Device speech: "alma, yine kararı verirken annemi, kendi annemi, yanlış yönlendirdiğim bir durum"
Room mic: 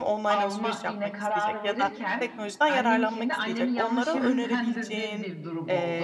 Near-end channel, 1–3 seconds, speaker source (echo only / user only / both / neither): both